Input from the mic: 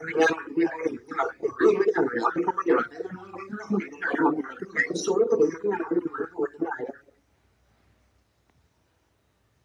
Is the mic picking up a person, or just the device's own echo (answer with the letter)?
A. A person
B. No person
B